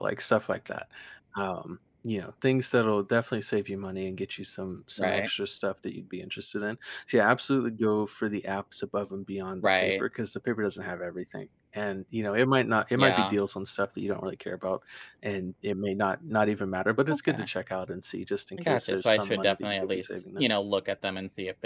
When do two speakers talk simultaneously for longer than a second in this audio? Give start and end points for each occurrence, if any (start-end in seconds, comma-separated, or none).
18.6-20.4